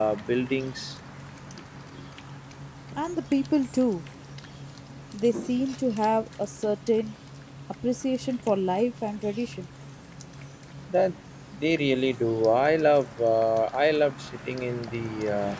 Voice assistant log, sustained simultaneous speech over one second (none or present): none